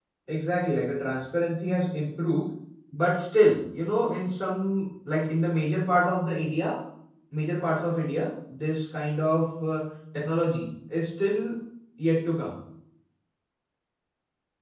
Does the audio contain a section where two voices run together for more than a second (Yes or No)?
No